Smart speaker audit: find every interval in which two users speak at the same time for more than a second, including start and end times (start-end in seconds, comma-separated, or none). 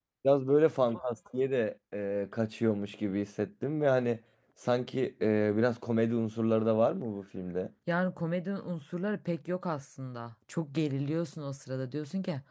none